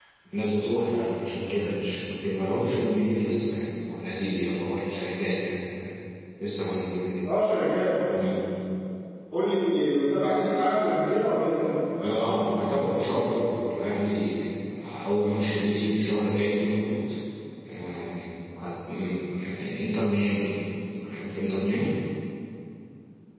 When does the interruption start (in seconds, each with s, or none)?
none